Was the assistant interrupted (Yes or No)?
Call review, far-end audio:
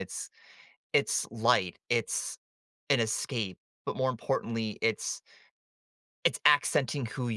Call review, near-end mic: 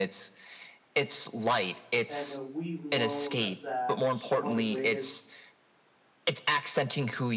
Yes